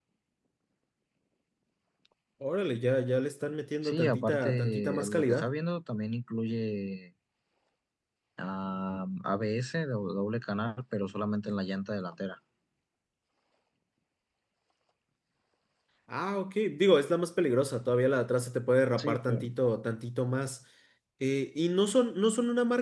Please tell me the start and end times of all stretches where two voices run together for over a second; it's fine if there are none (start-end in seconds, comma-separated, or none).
3.8-5.5